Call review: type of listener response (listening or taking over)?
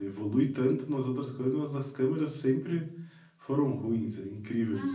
taking over